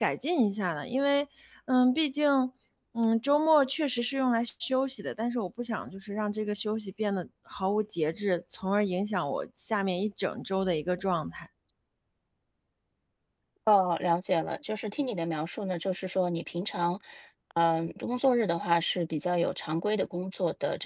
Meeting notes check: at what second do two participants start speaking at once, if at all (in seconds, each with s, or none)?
none